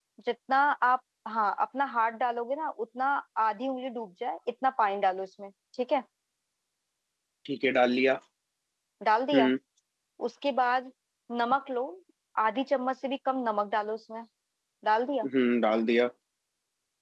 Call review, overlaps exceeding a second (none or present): none